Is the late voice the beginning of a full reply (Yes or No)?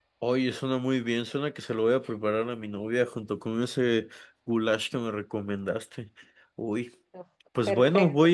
No